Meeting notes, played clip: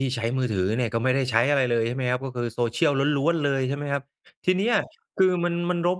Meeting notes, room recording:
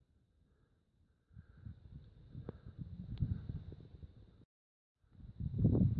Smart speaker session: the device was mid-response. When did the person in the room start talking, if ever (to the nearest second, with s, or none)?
none